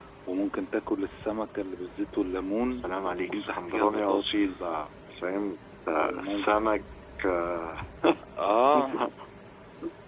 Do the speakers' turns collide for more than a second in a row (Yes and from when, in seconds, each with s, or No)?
Yes, from 2.7 s